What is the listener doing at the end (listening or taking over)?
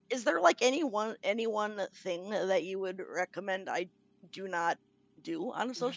taking over